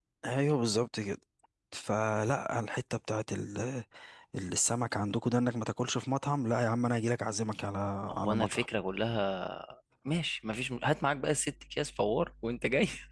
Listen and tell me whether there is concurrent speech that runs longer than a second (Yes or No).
No